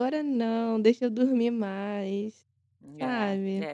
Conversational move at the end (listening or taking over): taking over